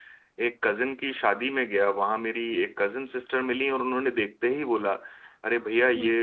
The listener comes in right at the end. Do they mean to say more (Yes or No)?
No